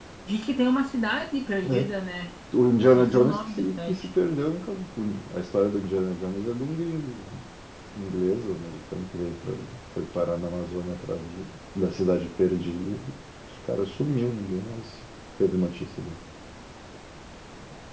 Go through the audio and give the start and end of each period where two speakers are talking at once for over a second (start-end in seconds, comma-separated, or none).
2.8-4.1